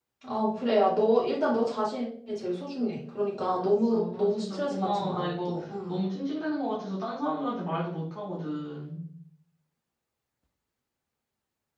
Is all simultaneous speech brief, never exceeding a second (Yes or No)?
No